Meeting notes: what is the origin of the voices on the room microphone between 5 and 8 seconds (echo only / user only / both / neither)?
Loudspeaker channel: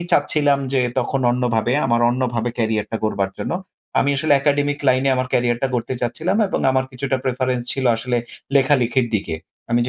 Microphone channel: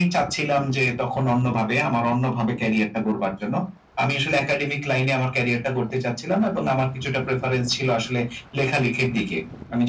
echo only